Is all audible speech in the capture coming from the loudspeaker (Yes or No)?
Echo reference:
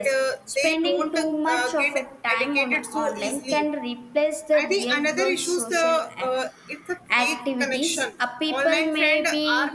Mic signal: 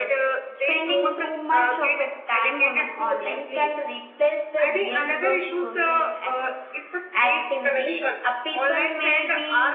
Yes